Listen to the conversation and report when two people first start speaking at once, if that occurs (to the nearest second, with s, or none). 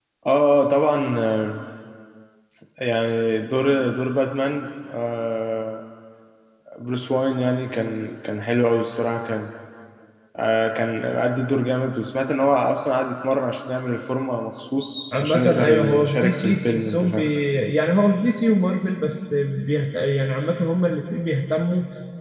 15 s